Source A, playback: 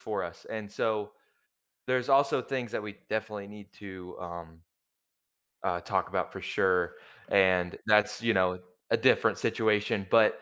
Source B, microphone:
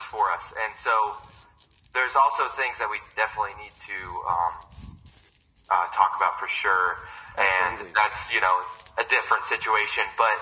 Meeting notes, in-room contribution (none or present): present